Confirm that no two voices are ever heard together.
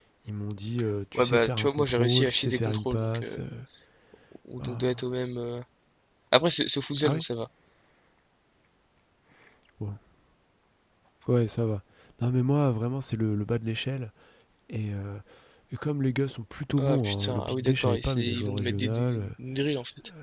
No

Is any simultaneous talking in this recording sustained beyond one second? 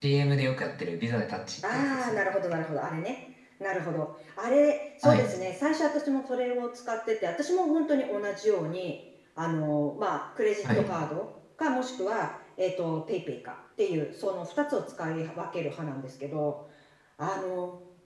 No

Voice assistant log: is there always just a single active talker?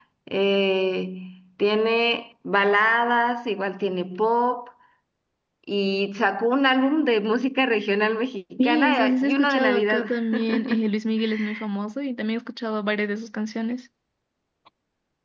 No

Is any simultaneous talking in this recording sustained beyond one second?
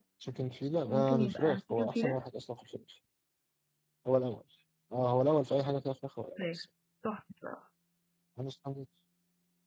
Yes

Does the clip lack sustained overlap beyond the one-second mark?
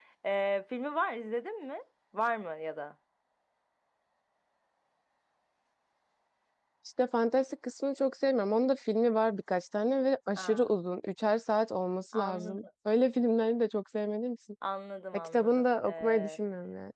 No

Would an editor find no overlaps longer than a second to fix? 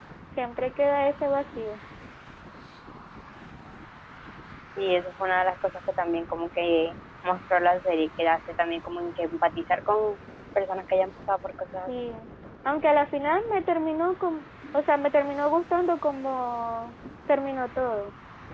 Yes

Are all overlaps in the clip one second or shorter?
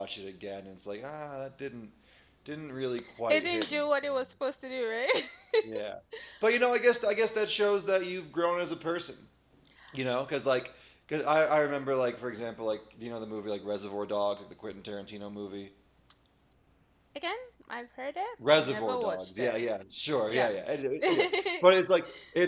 No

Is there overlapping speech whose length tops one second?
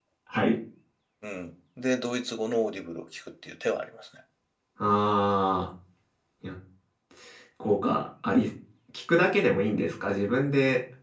No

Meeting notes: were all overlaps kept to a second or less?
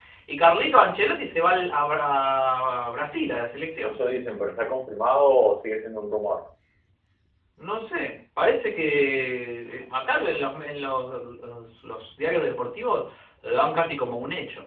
Yes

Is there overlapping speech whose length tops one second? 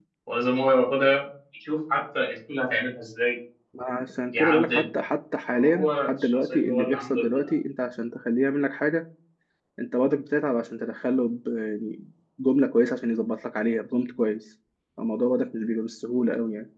Yes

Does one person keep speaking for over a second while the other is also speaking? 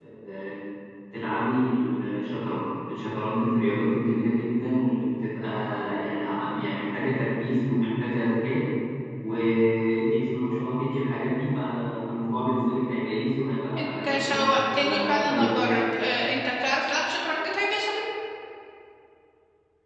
Yes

